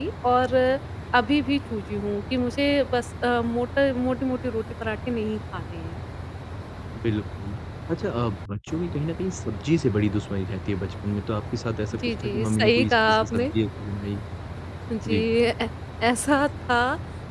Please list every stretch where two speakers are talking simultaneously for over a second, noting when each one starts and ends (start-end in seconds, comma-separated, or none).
11.9-13.5